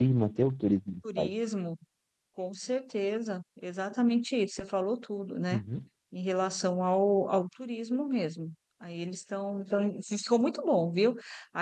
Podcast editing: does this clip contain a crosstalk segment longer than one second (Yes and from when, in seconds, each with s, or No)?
No